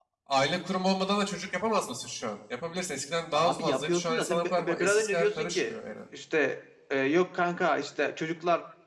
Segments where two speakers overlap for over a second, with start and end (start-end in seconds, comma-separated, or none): 3.4-5.8